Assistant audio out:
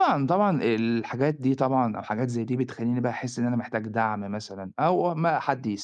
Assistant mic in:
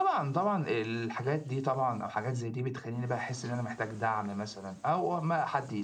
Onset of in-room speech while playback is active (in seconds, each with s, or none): none